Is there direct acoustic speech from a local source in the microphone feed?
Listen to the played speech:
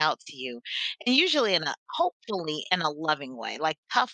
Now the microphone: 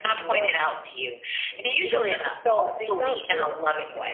Yes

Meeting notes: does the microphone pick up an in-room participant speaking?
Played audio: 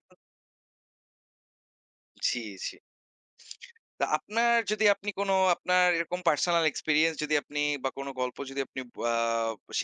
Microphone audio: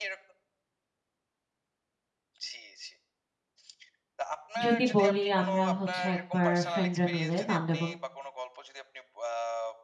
Yes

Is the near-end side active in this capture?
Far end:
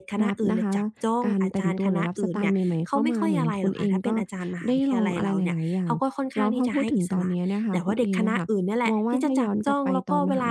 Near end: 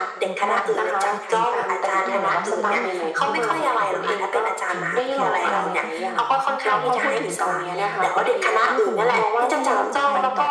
Yes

